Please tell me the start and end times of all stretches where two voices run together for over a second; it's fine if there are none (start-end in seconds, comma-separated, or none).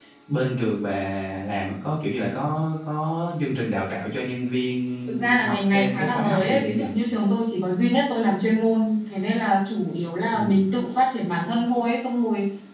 5.1-6.8